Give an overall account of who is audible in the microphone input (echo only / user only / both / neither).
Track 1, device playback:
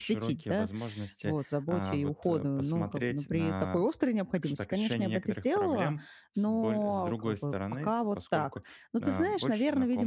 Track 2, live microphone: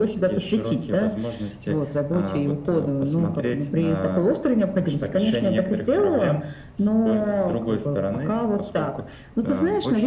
echo only